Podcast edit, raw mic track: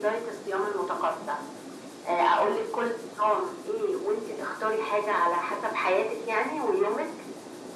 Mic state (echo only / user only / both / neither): echo only